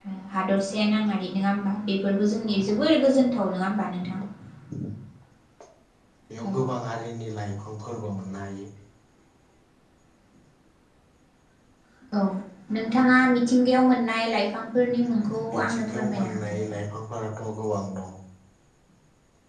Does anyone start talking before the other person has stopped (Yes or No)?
Yes